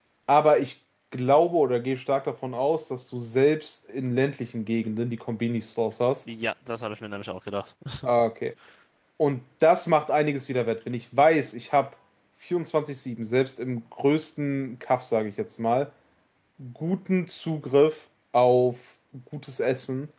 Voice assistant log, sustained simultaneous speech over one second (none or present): none